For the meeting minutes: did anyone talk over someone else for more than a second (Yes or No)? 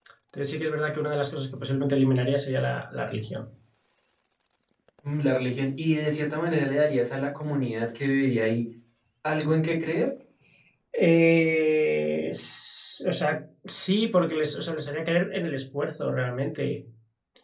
No